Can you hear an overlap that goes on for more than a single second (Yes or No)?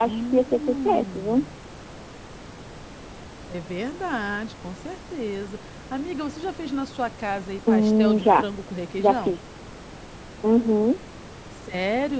Yes